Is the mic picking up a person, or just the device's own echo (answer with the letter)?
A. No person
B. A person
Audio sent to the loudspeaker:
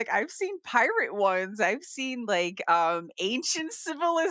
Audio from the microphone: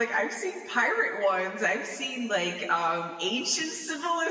A